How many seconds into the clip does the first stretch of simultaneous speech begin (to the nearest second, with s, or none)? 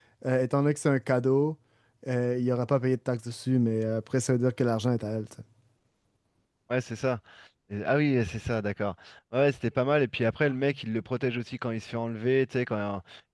none